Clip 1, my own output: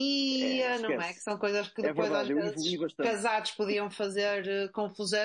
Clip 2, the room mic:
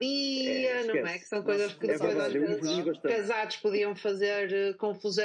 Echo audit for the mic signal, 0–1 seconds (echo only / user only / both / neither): echo only